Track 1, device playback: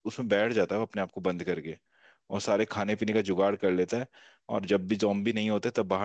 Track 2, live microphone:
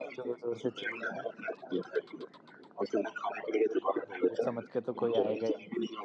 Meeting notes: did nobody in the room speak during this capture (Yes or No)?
No